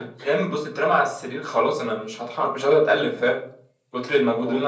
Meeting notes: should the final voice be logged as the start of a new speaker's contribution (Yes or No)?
No